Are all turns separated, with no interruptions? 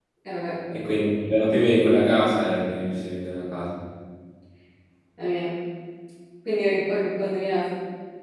Yes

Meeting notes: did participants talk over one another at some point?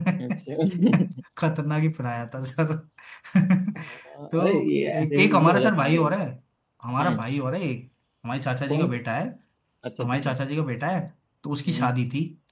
Yes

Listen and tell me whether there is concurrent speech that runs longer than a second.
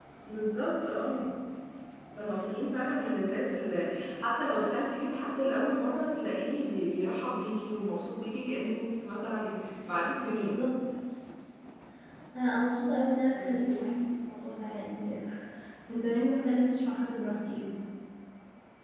No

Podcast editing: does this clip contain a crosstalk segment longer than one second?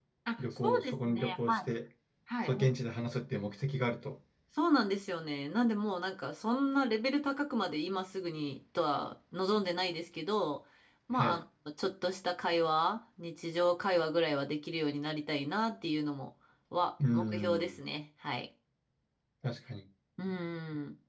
Yes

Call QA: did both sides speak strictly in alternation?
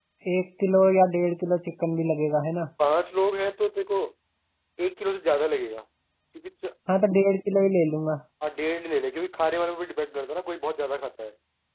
Yes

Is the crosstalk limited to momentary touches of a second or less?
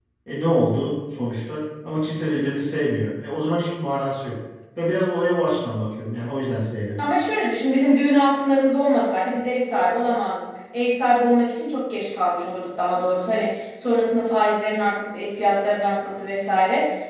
Yes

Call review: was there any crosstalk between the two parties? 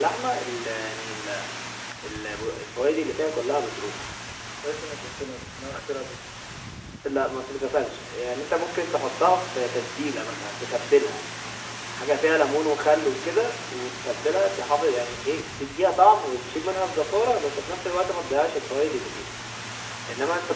No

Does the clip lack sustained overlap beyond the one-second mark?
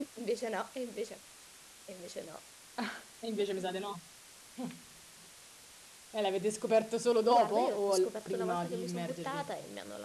No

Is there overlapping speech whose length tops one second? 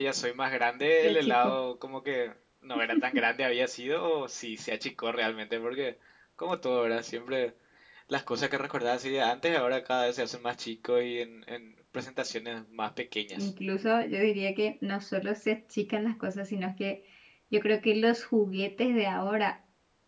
No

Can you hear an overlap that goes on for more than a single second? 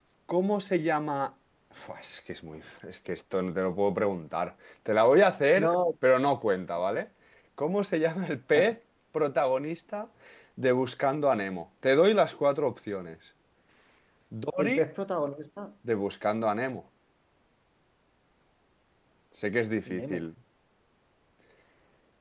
No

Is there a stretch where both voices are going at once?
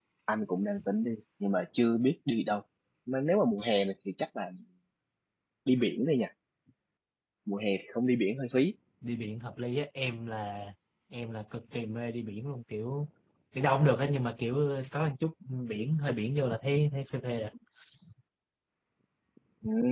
No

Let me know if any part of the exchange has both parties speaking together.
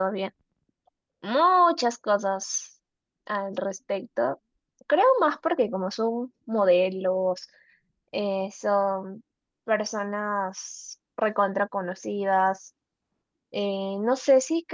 No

